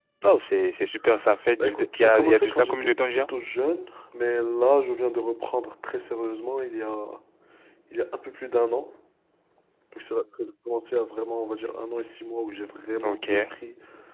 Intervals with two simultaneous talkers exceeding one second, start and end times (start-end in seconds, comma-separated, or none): 1.6-3.3